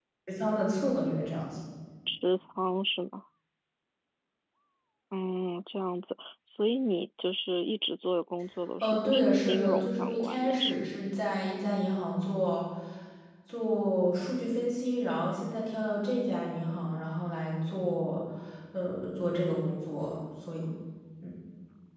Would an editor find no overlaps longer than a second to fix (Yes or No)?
No